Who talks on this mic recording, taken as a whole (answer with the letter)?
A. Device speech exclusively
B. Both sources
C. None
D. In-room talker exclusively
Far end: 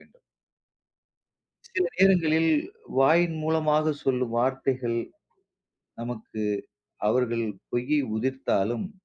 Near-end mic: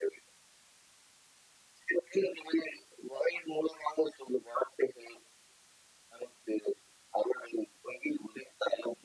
A